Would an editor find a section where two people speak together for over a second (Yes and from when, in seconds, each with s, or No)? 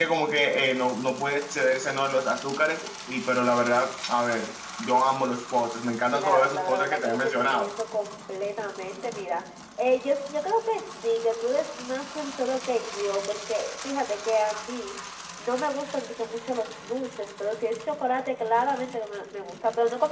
Yes, from 6.1 s